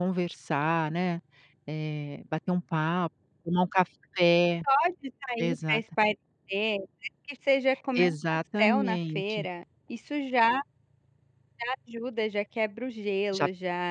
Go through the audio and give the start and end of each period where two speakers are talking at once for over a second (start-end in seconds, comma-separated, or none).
8.0-9.5